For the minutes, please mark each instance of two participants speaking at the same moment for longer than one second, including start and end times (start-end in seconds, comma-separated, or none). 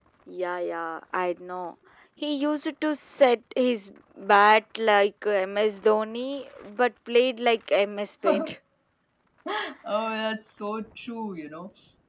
none